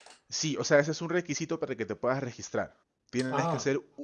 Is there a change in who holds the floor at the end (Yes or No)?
No